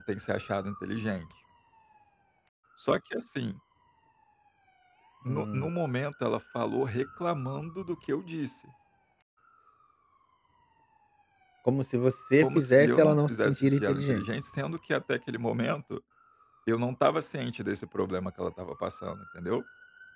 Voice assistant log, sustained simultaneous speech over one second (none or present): present